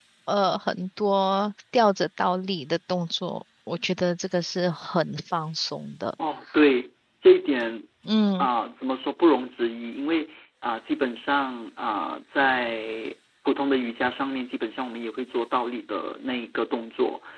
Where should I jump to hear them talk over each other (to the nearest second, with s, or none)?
none